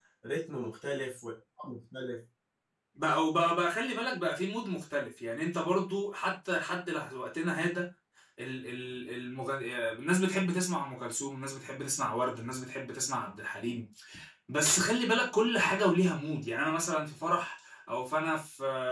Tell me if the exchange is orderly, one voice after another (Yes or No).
Yes